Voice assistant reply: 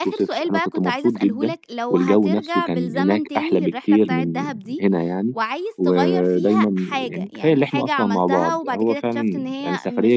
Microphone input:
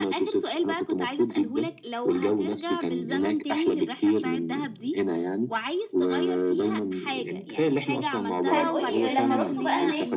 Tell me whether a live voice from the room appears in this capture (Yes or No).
Yes